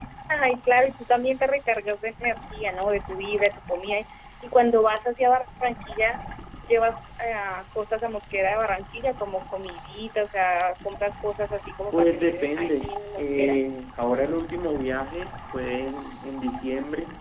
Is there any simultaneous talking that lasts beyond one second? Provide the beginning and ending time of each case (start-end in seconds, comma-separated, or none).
11.9-13.6